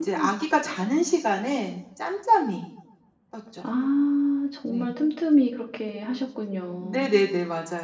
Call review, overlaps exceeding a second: none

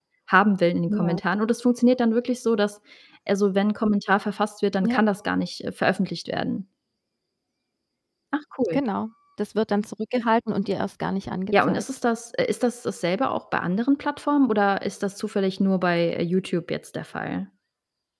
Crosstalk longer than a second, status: none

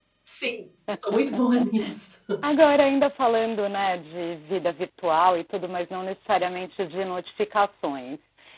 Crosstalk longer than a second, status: none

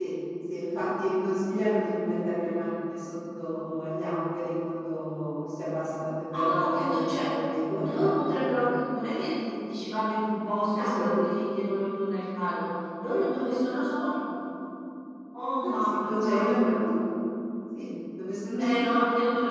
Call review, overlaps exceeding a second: present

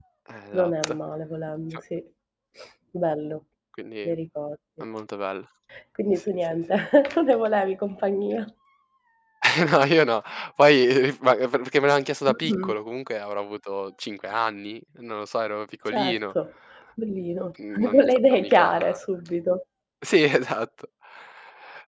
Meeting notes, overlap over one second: present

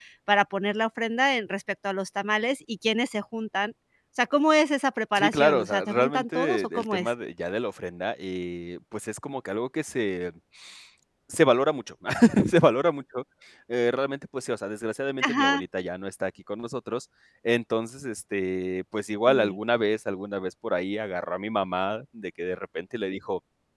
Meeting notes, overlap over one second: present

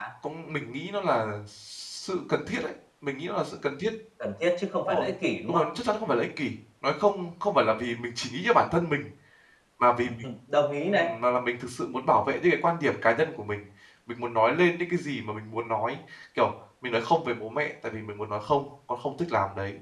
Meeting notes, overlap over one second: none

